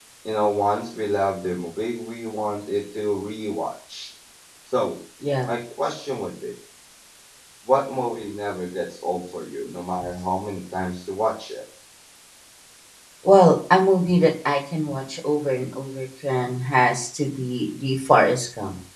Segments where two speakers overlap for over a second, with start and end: none

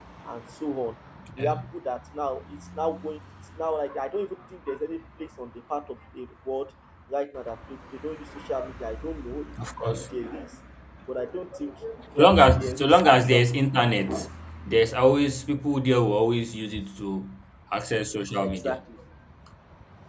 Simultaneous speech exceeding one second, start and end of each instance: 12.2-13.5

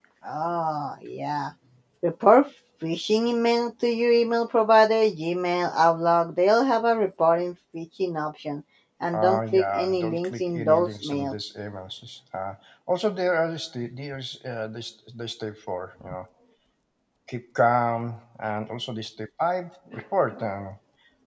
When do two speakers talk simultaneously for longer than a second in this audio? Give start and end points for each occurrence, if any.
9.1-11.3

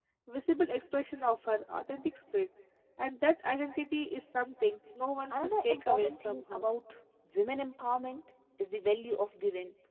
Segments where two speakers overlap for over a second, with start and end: 5.3-6.7

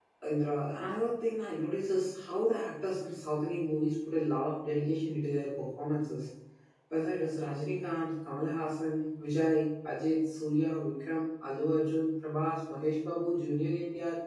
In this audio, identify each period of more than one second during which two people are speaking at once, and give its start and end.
none

